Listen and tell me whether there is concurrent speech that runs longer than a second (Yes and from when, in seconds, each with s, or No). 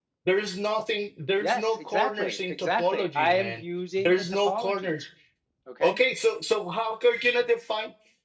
Yes, from 1.4 s